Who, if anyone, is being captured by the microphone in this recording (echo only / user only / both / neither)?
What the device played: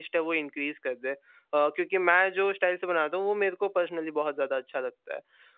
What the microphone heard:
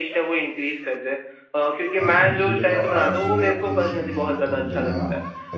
both